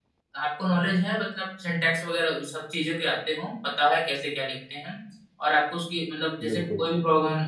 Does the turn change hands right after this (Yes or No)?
No